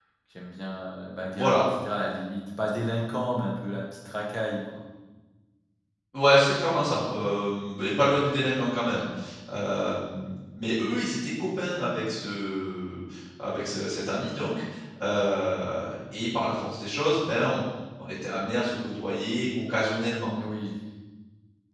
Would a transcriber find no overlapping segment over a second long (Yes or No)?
Yes